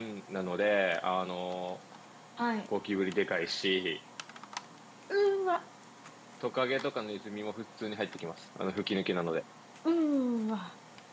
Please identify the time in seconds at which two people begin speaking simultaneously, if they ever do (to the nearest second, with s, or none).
none